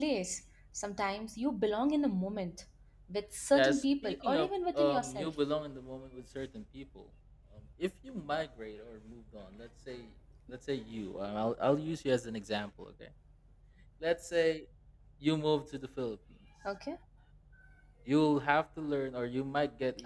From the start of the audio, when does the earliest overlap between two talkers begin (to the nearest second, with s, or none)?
4 s